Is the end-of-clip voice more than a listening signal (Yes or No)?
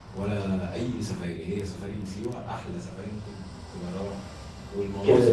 No